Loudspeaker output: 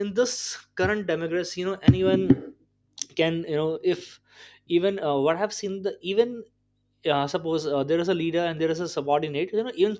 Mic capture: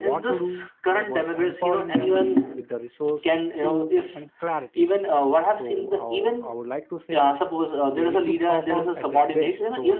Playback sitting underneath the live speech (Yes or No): No